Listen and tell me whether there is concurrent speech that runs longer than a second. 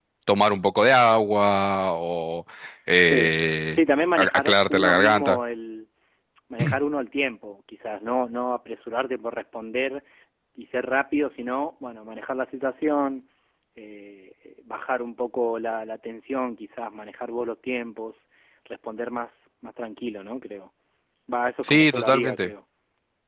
Yes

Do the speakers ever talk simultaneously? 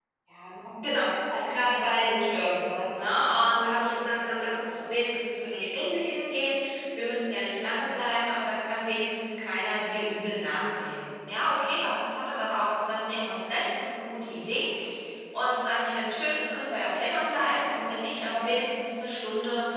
Yes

